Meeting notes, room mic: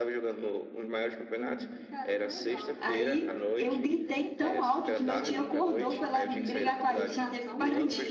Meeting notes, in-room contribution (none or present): present